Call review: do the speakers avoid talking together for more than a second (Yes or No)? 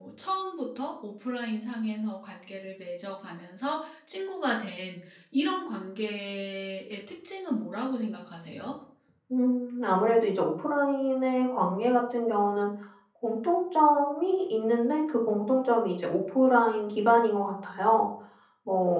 Yes